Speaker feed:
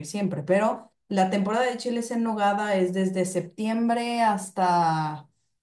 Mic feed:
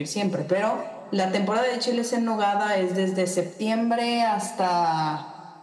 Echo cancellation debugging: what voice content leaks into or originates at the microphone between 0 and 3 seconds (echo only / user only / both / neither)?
echo only